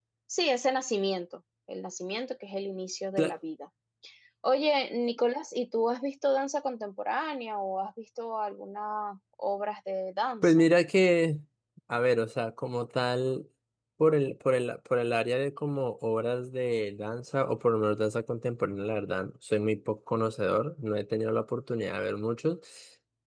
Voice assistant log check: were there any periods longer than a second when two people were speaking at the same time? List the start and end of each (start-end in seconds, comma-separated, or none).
none